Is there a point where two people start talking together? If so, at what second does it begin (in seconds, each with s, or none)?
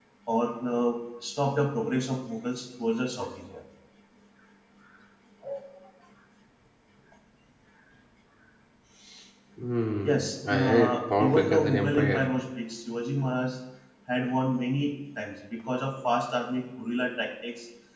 10.0 s